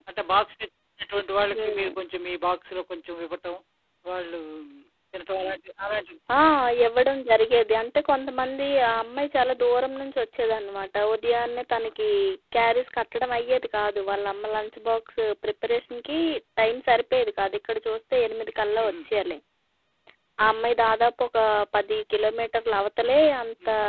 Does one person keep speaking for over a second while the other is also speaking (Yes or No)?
No